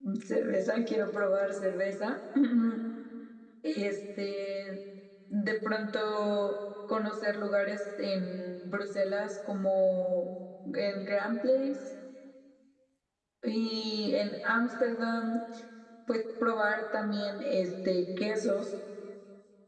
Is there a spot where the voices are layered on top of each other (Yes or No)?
No